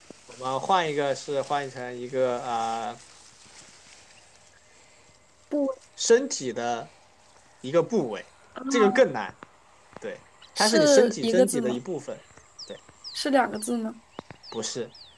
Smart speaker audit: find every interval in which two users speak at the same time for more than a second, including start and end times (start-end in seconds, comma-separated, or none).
10.6-11.8